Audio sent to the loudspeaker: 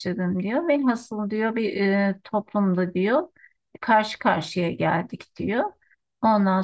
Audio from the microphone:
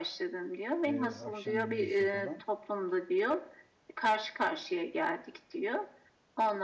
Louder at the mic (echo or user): echo